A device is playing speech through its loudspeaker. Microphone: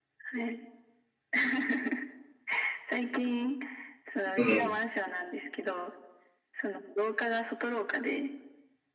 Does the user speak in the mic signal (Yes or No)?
Yes